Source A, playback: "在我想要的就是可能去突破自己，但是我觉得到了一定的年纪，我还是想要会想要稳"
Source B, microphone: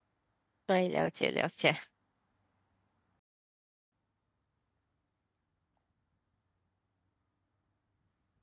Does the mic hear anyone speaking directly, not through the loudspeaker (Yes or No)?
Yes